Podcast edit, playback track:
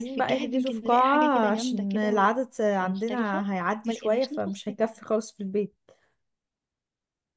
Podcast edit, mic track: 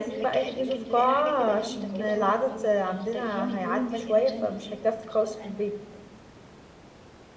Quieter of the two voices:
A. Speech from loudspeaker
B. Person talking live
B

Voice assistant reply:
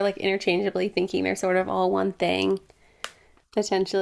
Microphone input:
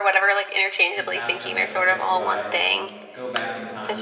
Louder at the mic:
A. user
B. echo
B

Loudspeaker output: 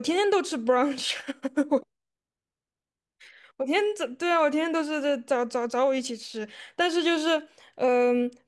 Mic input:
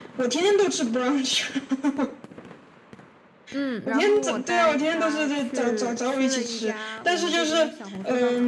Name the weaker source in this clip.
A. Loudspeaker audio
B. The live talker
B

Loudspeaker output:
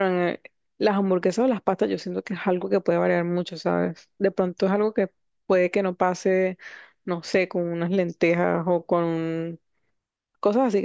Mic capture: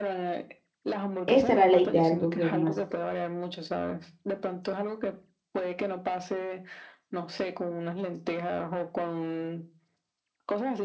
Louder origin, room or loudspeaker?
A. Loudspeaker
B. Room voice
B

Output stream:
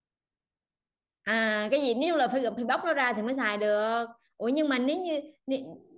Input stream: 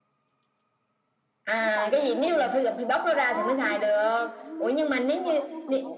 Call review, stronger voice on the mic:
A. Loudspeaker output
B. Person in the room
A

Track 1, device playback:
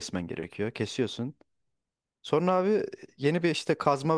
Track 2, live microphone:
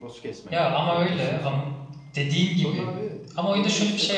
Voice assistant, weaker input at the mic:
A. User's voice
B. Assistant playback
B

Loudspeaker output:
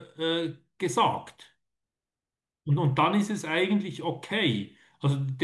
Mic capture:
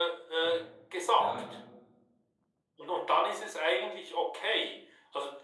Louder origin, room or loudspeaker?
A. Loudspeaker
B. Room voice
A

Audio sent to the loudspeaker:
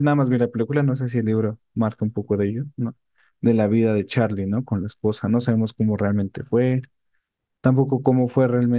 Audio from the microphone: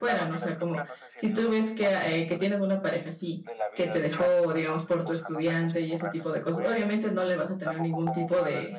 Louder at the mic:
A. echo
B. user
B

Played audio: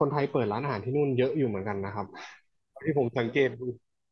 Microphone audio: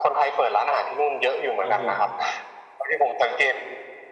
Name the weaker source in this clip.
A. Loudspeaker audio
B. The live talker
B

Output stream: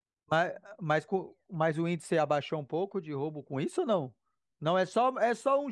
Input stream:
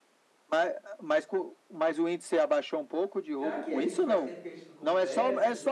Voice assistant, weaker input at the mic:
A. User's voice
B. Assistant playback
A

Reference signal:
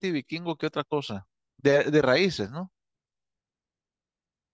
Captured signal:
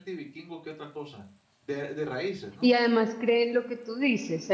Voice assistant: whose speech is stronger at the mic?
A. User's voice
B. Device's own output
A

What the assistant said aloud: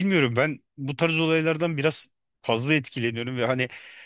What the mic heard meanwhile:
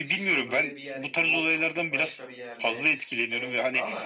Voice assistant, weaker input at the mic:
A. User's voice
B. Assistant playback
A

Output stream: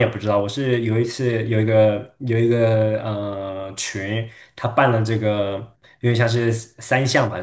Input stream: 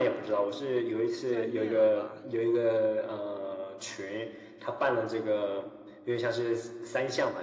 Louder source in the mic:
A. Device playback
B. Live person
A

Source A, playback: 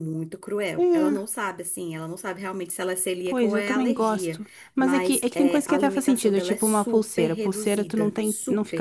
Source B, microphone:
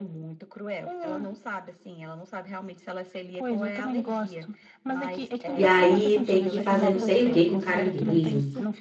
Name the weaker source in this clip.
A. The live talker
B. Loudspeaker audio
B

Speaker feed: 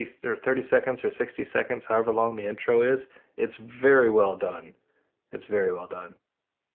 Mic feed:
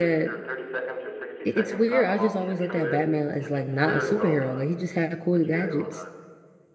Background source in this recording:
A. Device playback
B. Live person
A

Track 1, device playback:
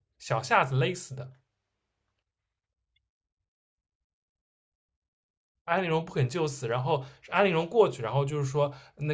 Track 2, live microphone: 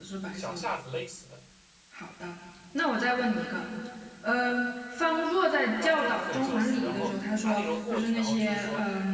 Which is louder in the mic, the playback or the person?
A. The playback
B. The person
B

